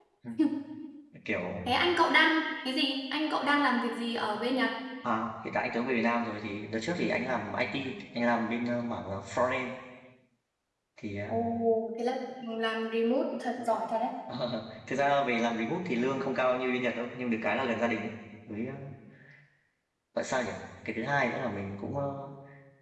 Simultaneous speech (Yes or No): No